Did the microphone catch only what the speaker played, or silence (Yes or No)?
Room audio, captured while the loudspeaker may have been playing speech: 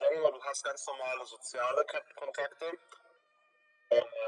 Yes